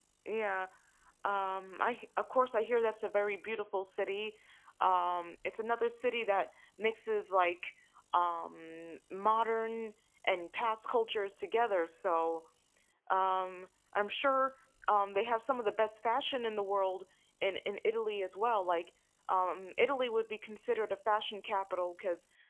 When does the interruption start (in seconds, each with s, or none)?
none